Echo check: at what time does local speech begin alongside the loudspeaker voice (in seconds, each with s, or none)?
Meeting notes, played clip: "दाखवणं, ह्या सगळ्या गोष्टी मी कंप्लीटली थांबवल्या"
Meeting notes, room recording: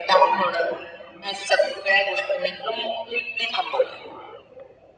none